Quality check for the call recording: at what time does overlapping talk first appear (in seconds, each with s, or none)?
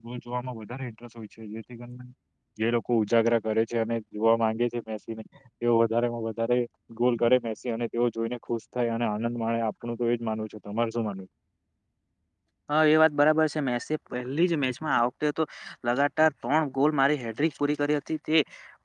none